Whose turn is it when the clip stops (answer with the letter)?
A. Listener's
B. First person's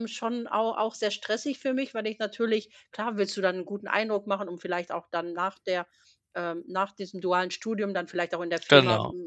B